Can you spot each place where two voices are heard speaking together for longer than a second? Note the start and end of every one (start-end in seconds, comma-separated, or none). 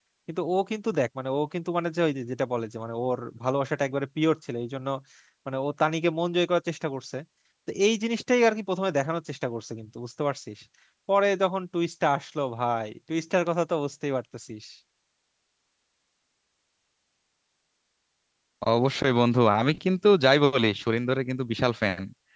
none